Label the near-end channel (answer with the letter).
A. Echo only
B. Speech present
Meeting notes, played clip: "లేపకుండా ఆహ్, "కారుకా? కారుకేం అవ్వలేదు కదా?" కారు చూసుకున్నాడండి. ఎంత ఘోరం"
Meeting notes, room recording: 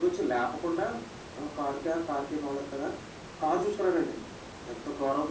A